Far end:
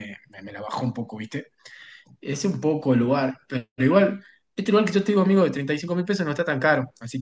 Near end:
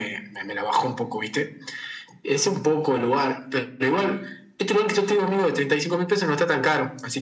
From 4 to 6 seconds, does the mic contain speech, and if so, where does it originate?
echo only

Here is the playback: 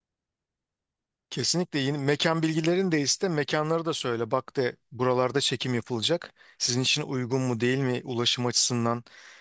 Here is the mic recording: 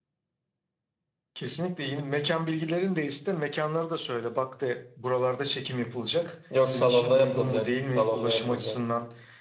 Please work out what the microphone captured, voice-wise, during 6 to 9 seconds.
both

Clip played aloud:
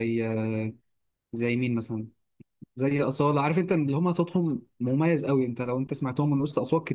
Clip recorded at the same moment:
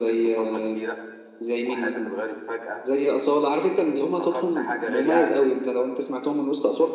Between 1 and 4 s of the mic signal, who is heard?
both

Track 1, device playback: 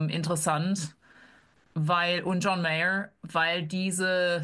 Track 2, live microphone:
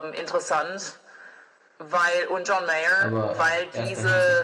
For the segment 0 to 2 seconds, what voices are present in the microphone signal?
echo only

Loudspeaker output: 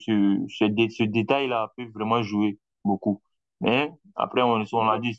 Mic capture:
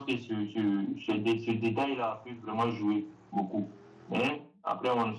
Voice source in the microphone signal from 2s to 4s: echo only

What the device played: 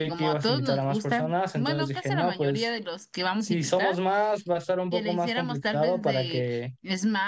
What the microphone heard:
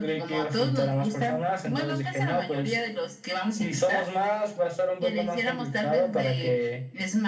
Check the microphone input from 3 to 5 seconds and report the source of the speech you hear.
echo only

